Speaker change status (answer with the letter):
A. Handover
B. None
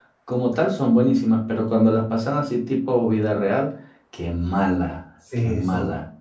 A